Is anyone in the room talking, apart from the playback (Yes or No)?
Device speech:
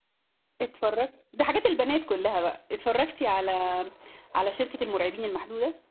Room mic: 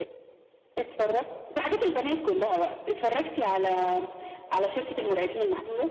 No